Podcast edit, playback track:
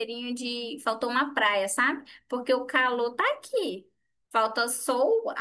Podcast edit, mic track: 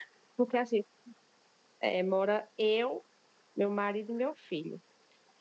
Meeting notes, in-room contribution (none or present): present